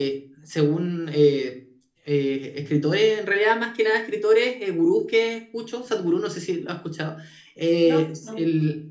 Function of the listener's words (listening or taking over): listening